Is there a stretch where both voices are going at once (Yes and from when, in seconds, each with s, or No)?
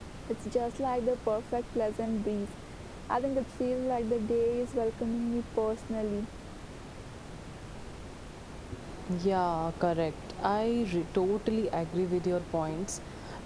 No